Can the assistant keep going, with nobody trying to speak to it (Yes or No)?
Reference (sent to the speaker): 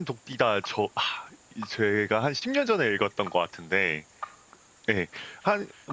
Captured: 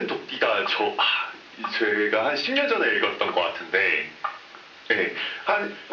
Yes